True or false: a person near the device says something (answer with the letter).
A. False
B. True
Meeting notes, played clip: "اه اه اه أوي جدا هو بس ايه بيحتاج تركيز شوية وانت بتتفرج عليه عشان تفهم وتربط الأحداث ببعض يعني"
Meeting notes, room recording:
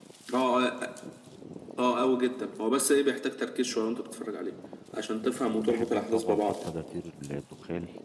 B